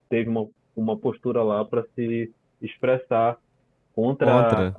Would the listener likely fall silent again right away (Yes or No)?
Yes